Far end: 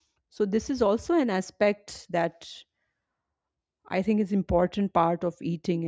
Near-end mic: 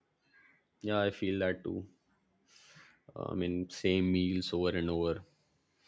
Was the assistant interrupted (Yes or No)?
Yes